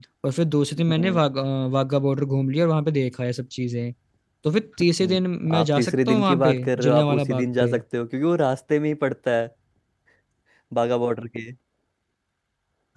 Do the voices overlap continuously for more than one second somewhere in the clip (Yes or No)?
Yes